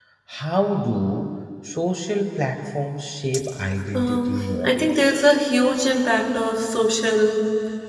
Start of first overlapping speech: 3.9 s

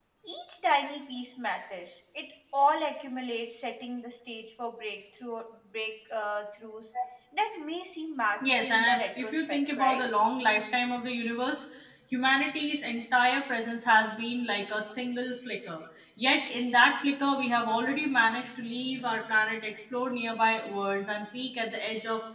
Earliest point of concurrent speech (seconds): 8.4 s

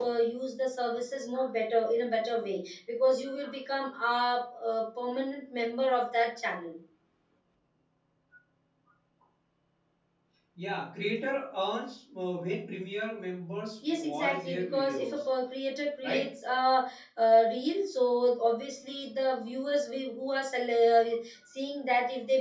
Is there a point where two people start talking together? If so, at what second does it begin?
13.8 s

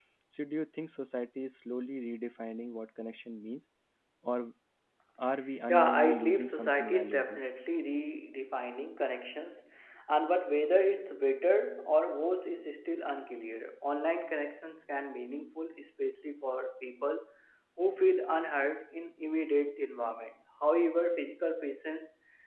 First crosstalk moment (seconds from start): 5.7 s

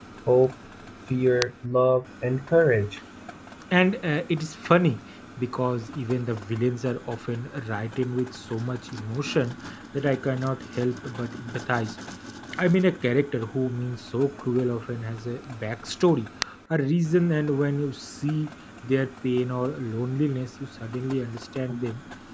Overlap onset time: none

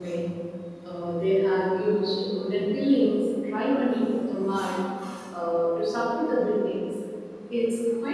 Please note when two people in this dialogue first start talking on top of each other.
none

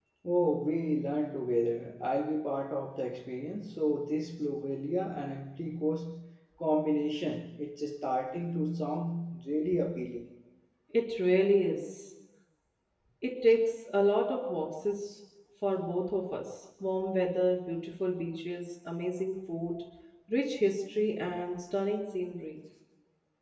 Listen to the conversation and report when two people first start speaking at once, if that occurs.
none

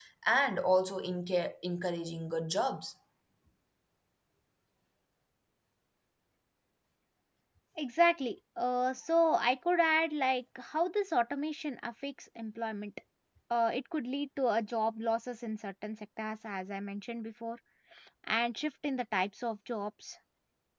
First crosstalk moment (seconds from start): none

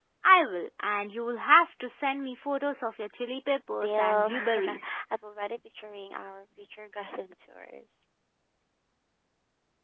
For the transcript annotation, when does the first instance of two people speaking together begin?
3.7 s

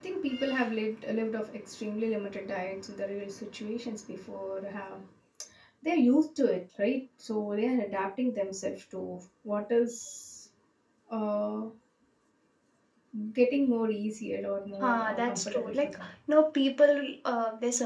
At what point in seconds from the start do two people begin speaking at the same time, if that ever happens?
14.8 s

